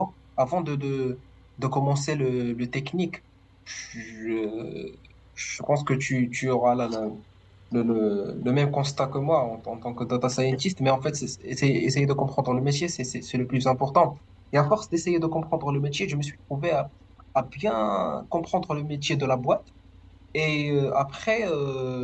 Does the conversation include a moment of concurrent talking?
No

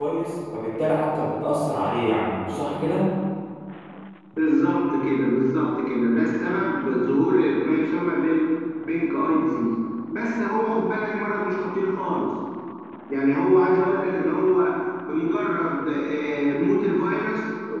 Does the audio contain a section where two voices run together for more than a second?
No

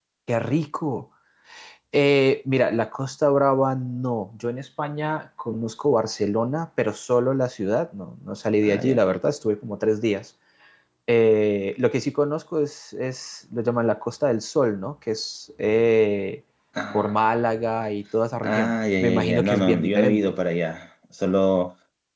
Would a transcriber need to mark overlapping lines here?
Yes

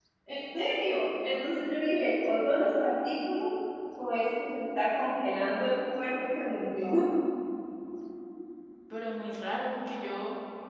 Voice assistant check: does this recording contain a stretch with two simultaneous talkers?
No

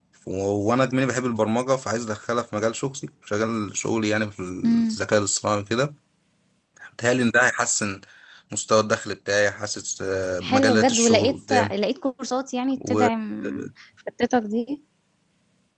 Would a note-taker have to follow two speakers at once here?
Yes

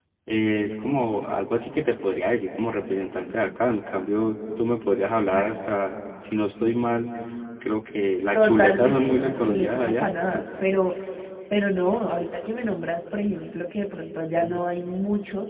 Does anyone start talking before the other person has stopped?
Yes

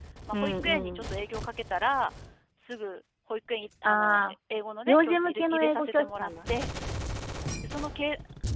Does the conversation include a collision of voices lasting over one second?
Yes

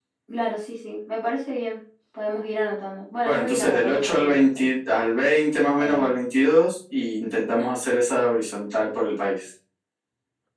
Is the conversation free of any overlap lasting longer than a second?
No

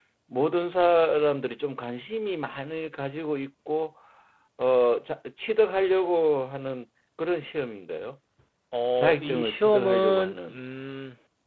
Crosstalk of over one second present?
Yes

